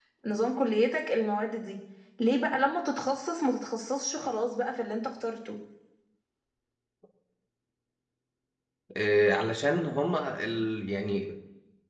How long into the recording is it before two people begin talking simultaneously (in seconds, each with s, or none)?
none